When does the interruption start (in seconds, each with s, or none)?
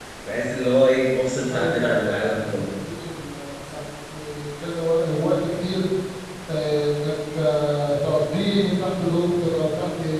1.5 s